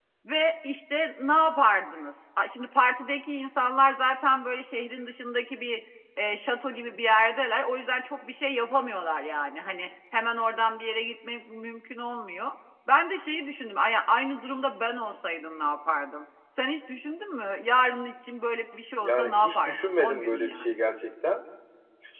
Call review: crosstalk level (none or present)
present